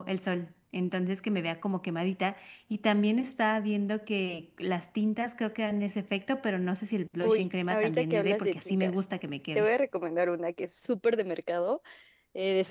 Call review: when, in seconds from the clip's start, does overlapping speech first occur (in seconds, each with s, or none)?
7.2 s